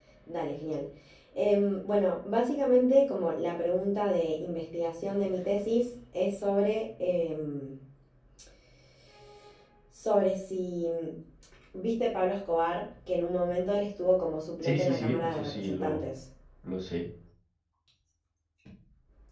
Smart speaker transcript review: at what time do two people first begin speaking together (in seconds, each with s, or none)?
14.6 s